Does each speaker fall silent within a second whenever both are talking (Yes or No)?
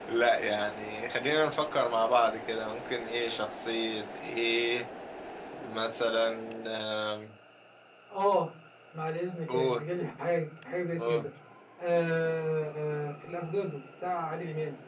Yes